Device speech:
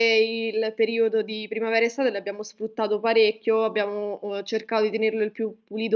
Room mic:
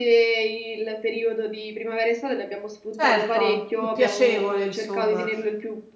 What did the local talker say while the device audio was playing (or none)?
Certo, più piacevole insomma.